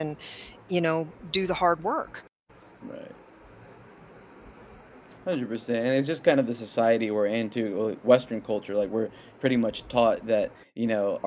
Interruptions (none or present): none